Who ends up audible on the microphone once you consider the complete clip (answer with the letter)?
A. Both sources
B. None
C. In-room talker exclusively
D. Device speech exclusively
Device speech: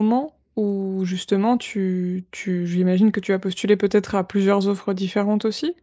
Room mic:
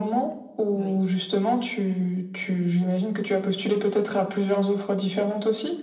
A